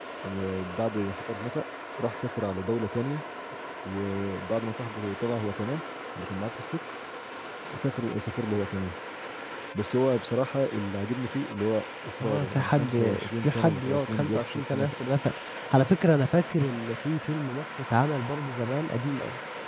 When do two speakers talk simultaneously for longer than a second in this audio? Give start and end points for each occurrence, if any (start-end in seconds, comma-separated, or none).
12.2-14.9